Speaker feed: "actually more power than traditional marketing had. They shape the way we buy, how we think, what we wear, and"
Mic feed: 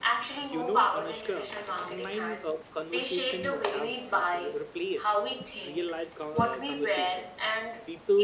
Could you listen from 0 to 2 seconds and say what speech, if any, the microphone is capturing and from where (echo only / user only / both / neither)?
both